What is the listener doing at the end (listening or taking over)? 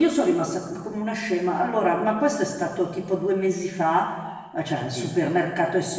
listening